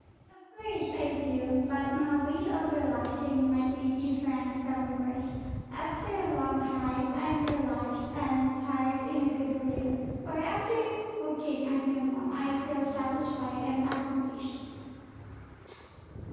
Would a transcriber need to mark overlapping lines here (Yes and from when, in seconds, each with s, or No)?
No